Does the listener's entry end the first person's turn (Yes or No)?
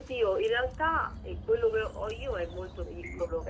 Yes